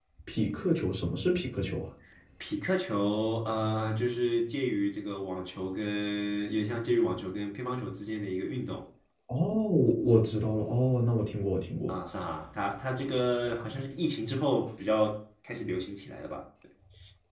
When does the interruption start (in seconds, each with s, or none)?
none